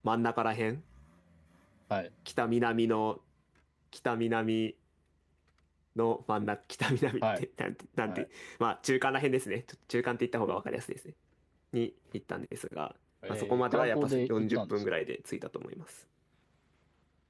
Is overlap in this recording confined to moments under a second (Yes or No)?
No